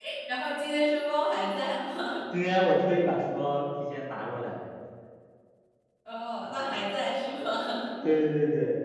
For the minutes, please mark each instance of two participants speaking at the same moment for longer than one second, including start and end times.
none

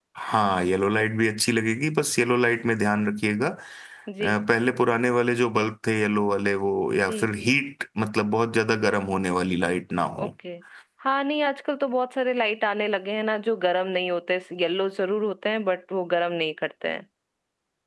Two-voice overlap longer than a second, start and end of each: none

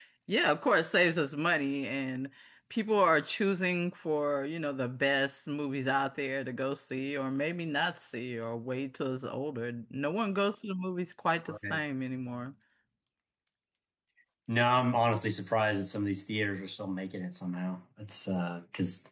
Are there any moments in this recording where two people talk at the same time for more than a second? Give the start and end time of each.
none

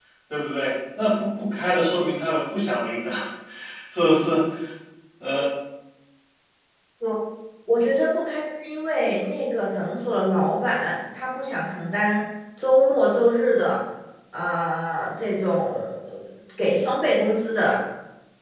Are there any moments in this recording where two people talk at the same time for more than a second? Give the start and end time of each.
none

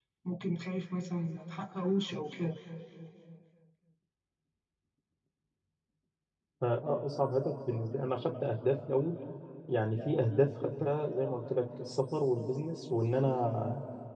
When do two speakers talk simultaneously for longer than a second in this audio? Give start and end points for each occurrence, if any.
none

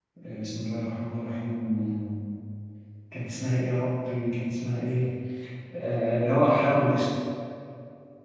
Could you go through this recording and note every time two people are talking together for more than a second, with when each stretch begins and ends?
none

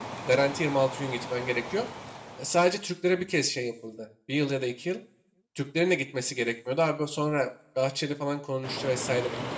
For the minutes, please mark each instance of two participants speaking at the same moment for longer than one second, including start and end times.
none

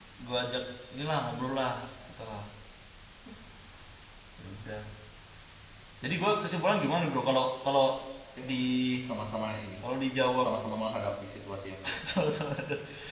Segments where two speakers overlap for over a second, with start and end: none

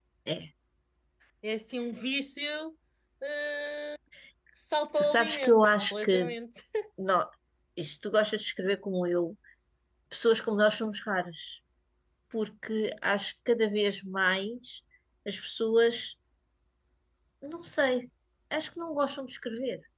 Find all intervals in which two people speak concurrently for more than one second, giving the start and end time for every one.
5.0-6.3

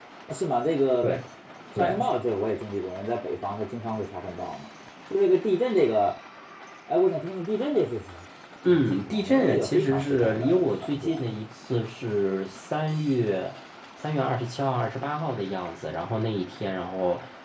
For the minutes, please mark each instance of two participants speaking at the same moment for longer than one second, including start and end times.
8.7-11.2

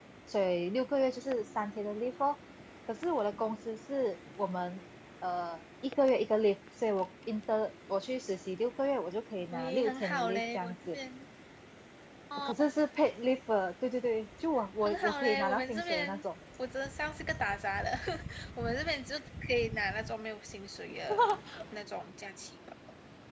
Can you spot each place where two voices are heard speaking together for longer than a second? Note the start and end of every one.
9.5-11.0, 14.8-16.2

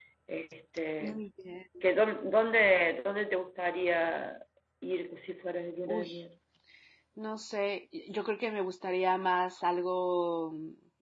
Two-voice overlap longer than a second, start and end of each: none

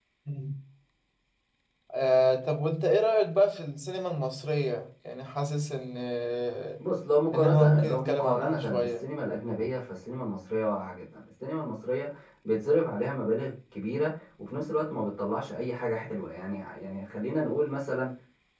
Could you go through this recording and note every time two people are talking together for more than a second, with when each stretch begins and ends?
7.3-9.1

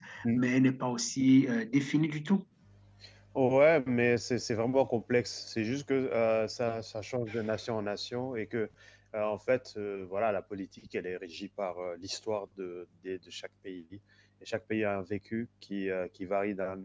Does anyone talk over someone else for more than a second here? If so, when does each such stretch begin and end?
none

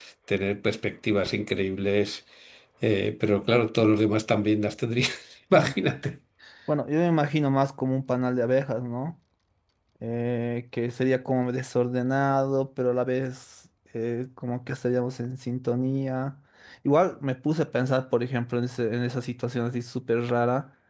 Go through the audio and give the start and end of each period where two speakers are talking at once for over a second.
none

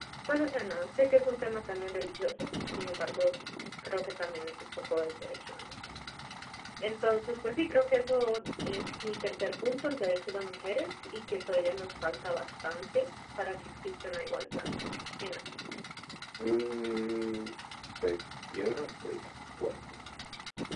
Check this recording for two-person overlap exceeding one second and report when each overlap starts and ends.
none

